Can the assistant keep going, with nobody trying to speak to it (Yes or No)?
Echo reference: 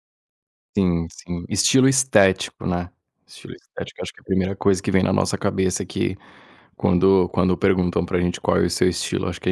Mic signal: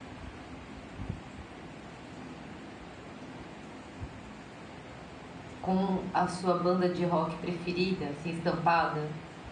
No